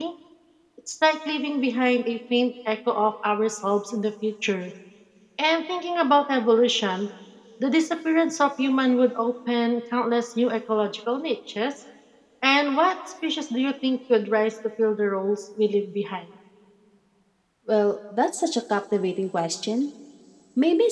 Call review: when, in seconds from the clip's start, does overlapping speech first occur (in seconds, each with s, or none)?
none